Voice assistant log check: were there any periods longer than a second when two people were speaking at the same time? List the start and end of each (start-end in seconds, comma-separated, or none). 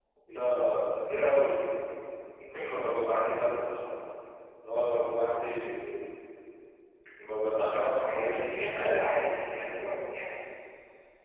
7.6-9.1